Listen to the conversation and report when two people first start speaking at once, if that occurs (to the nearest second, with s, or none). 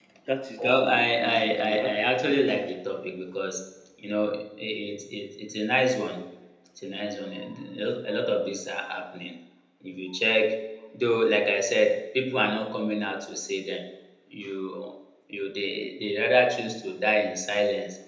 1 s